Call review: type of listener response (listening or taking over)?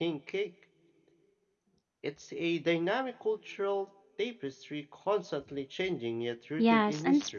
taking over